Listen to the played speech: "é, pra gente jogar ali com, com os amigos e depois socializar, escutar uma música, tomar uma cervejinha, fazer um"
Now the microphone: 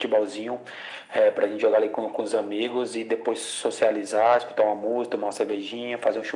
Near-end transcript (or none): none